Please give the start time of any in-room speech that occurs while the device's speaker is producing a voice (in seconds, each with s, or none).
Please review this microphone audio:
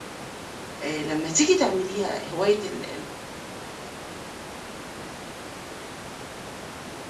0.8 s